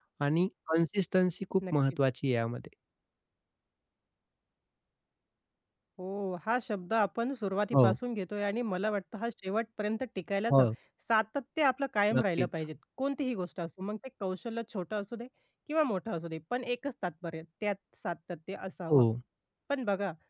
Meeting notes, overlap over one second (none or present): none